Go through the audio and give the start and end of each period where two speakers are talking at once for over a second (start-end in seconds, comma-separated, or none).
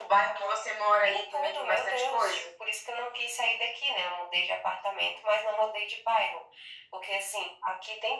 1.0-2.5